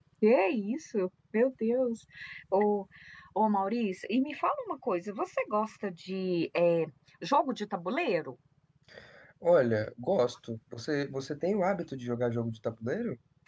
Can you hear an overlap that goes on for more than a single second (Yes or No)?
No